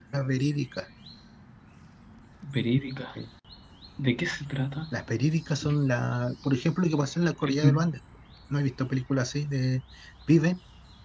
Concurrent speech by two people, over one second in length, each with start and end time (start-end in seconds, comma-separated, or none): none